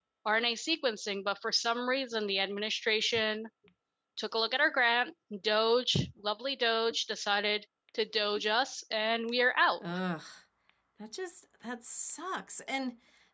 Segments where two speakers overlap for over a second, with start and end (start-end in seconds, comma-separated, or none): none